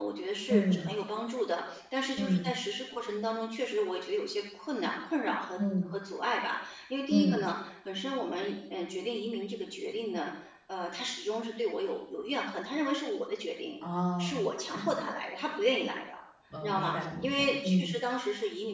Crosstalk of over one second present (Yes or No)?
Yes